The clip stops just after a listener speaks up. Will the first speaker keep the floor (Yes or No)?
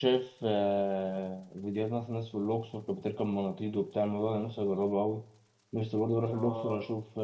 Yes